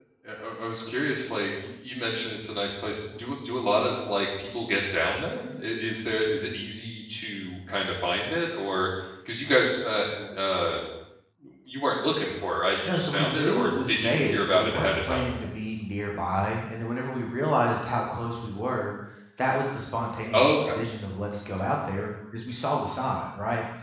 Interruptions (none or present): present